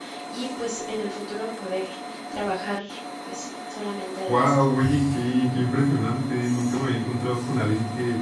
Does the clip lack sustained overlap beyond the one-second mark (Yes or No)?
Yes